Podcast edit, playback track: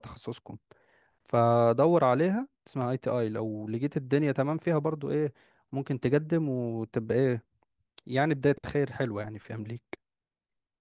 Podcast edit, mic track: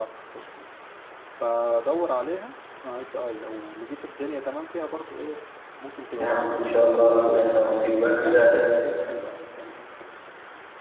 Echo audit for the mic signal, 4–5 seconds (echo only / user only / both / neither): echo only